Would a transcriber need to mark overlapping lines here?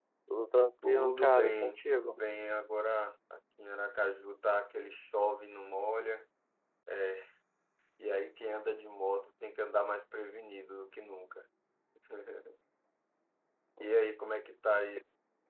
Yes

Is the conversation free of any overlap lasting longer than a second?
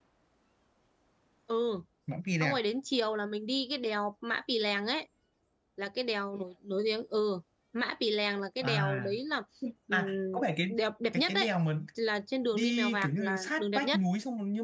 No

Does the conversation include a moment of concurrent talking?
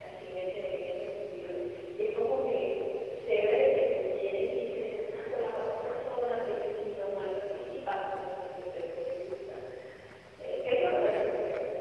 No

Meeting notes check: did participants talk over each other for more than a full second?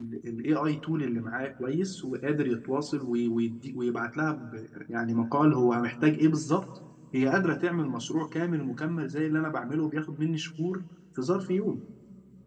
No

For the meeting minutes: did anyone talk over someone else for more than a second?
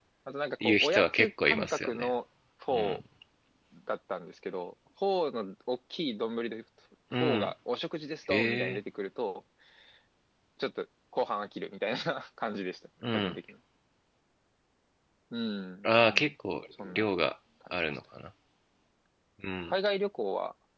Yes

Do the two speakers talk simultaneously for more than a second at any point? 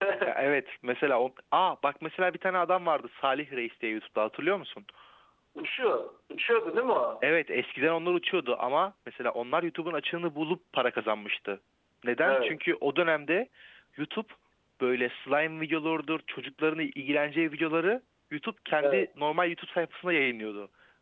No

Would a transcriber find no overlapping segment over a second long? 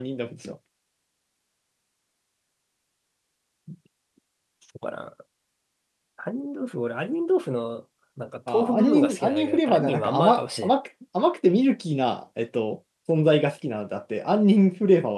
No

